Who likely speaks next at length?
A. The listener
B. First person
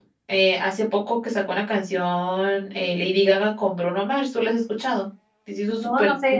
A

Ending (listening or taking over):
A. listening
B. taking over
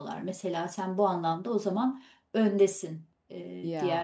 A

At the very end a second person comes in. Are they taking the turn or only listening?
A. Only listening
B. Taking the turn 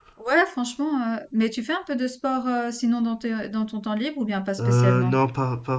B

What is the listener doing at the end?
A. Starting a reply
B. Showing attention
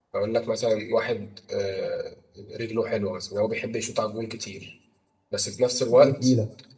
B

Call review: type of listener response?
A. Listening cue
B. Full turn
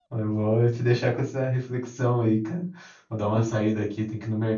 A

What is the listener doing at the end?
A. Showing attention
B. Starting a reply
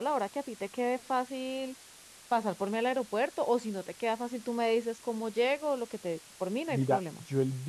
B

